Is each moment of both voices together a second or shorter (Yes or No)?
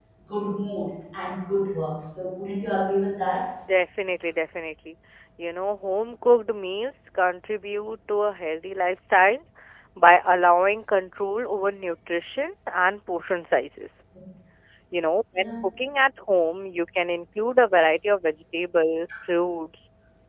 Yes